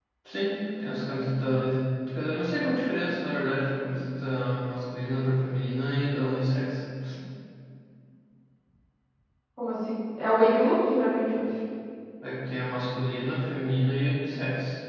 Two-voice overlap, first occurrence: none

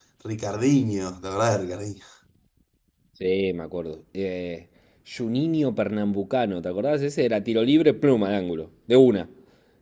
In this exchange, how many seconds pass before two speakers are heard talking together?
none

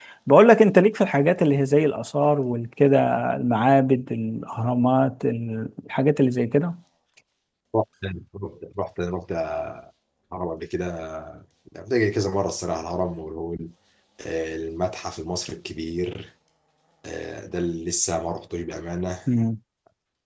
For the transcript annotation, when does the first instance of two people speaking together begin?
none

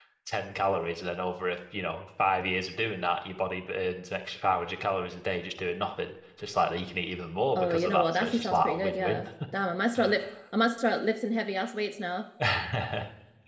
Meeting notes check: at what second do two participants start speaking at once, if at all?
7.6 s

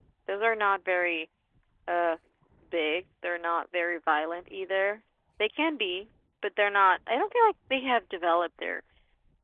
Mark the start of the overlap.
none

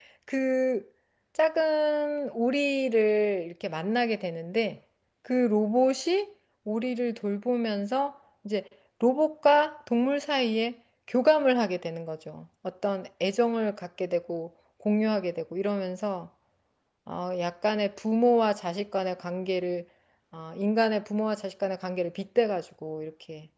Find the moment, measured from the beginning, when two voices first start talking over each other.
none

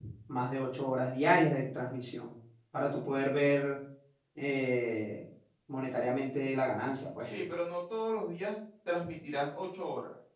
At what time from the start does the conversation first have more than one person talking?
none

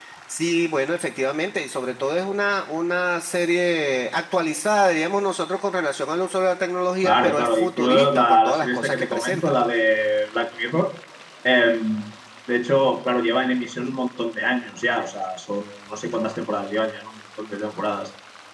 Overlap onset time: 7.0 s

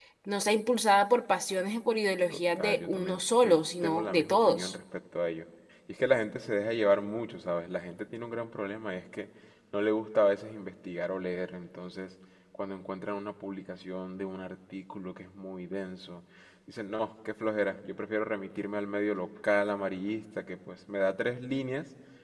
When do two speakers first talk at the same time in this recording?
2.3 s

